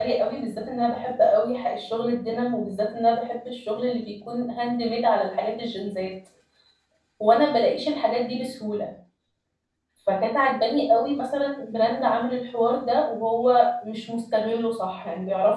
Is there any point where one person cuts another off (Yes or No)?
No